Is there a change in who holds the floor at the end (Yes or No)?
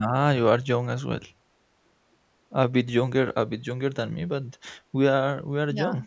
No